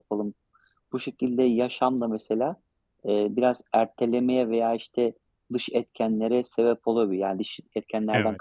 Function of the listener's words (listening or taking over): listening